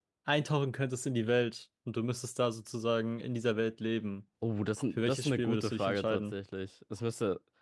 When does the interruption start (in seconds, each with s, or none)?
5.0 s